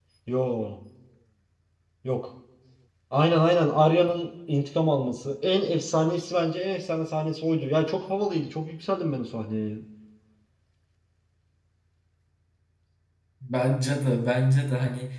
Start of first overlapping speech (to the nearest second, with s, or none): none